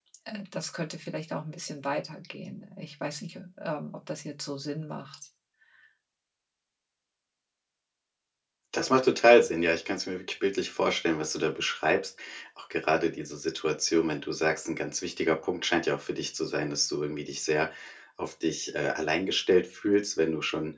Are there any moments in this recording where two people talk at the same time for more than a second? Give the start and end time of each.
none

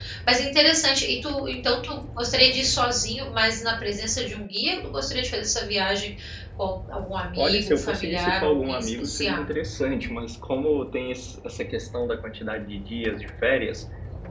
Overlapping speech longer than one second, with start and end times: 7.4-9.5

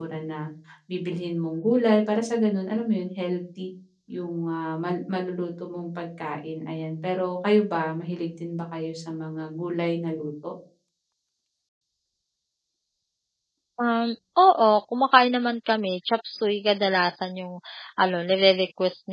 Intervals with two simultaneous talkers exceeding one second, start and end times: none

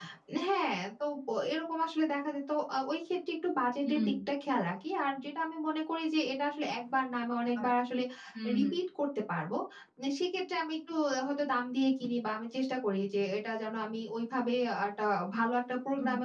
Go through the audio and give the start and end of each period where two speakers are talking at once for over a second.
none

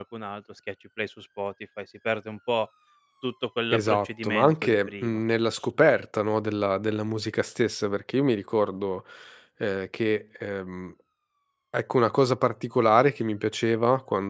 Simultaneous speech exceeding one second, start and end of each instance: 3.7-5.2

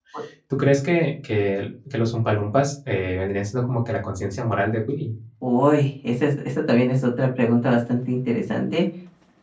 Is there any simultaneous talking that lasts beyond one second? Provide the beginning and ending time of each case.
none

